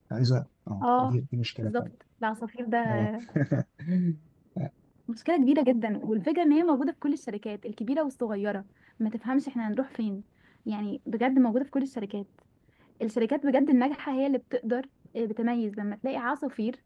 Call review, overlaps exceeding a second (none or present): none